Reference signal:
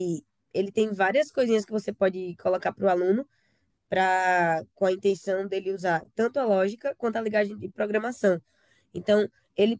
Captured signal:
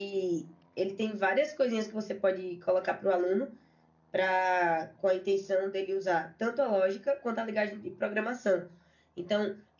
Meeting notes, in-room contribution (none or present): none